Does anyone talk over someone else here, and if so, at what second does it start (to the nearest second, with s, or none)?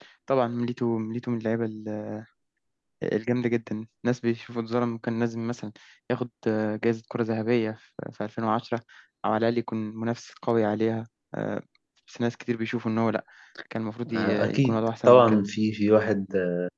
14 s